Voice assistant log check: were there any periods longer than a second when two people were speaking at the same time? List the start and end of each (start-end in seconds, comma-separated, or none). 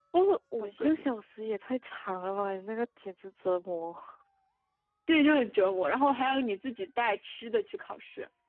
none